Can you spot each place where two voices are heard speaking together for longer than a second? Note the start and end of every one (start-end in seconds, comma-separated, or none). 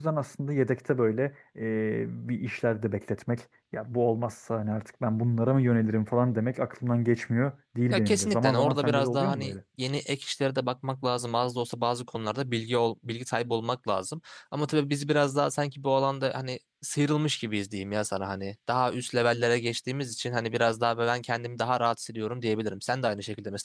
7.9-9.5